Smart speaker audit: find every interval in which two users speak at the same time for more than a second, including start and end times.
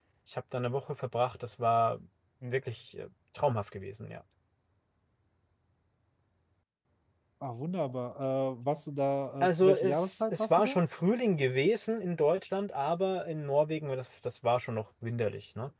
9.4-10.8

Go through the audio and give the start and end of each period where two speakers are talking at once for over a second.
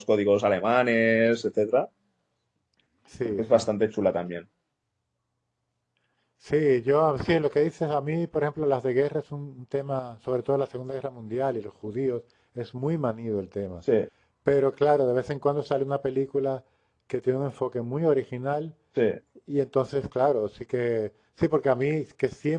none

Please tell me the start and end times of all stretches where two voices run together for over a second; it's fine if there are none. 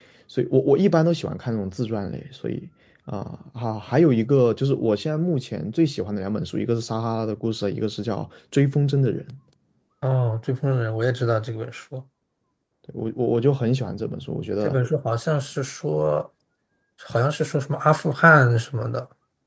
none

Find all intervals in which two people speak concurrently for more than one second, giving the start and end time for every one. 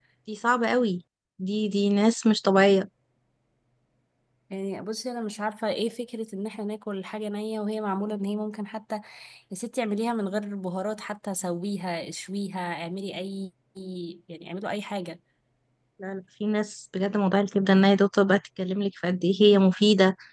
none

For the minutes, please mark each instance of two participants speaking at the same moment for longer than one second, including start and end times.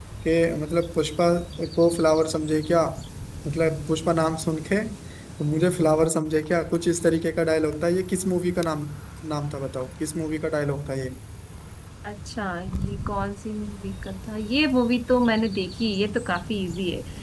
none

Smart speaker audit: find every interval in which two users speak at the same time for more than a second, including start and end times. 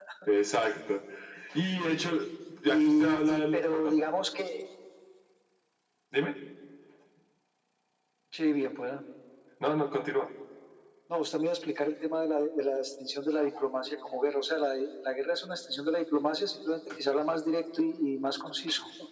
2.6-4.0

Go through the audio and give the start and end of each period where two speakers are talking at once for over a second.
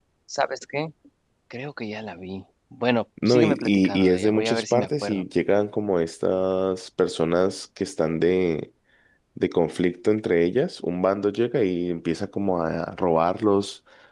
3.2-5.2

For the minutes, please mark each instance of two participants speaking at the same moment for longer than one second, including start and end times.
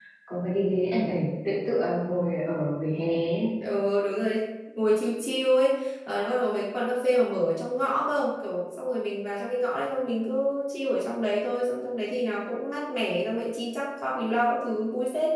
none

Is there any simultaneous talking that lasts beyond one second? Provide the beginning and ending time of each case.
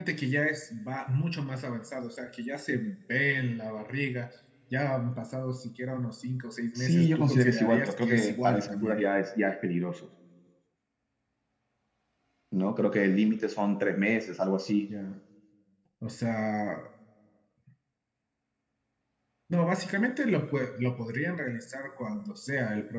6.8-9.0

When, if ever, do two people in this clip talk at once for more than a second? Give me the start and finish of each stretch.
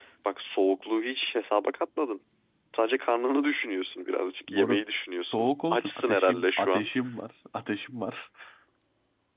5.3-6.9

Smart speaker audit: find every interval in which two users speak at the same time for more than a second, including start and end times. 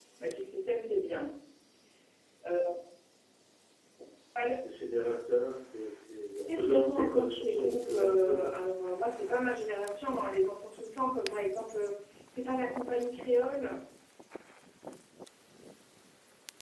6.6-8.5

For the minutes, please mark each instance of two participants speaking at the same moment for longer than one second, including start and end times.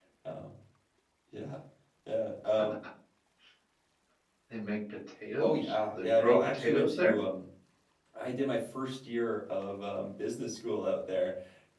5.4-7.2

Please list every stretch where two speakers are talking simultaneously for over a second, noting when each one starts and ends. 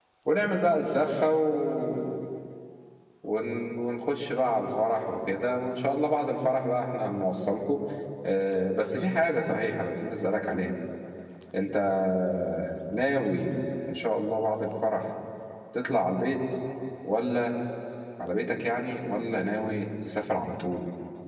none

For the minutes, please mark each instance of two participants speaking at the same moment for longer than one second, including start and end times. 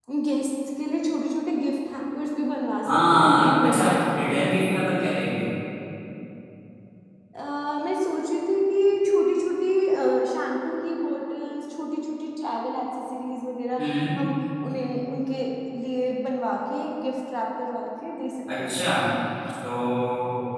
2.9-4.7

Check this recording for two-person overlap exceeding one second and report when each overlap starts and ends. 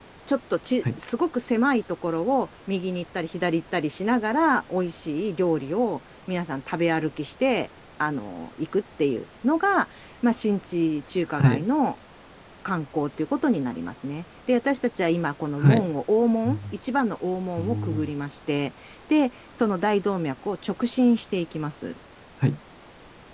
none

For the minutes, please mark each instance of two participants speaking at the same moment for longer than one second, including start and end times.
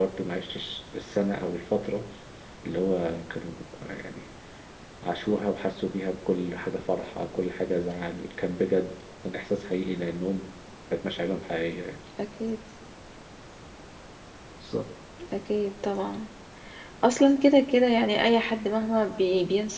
none

